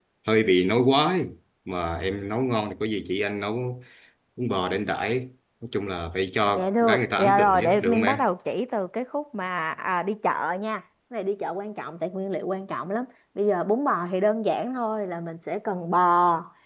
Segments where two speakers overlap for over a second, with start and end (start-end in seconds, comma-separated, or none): 6.5-8.2